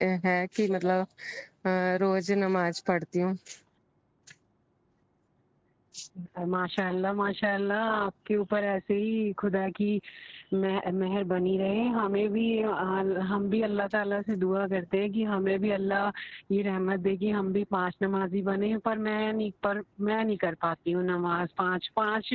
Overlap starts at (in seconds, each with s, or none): none